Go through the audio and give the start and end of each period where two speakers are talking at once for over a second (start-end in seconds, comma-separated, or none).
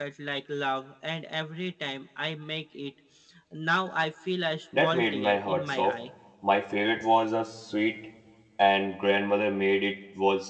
4.8-6.0